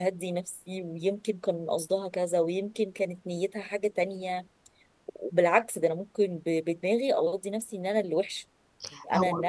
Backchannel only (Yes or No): No